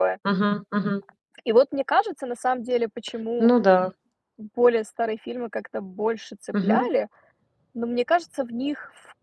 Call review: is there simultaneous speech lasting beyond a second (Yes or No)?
No